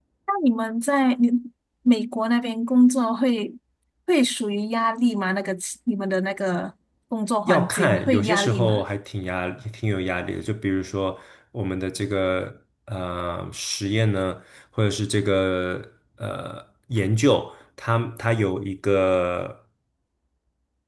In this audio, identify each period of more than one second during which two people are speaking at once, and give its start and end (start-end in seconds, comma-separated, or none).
7.5-8.8